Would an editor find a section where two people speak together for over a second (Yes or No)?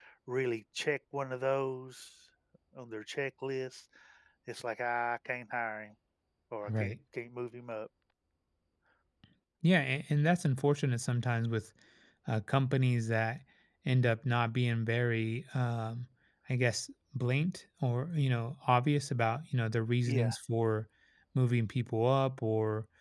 No